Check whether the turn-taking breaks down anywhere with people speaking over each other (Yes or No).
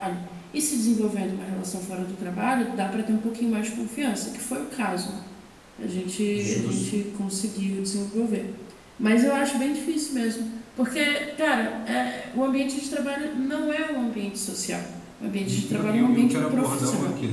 Yes